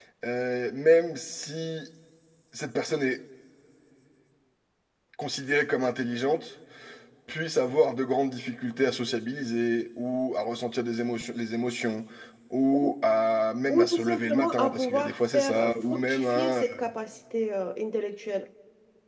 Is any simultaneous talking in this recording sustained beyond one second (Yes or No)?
Yes